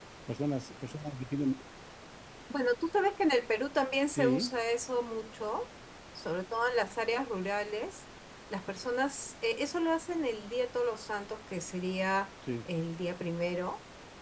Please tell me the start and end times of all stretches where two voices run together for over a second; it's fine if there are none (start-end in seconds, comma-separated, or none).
none